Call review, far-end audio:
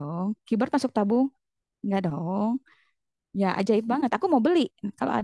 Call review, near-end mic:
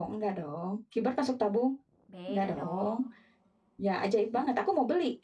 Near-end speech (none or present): present